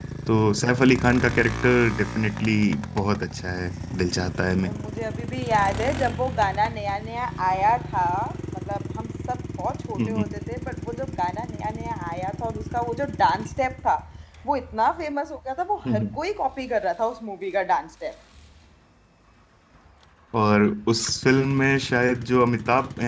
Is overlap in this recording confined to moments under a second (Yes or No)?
Yes